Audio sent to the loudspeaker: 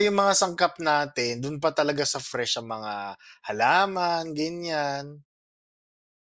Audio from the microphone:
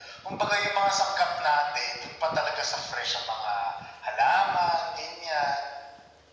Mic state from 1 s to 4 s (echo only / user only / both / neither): echo only